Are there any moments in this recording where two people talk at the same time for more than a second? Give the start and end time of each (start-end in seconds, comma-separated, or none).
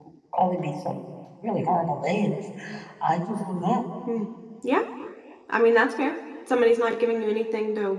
none